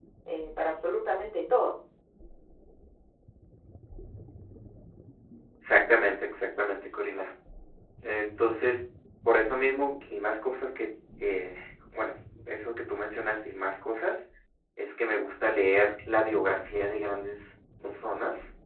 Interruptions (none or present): none